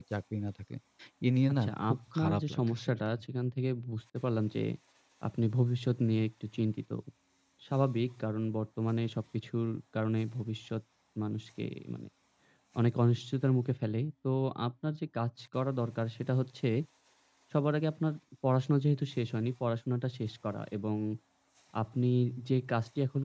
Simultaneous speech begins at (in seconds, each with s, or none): 1.5 s